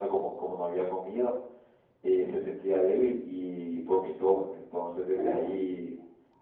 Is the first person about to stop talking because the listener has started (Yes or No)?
No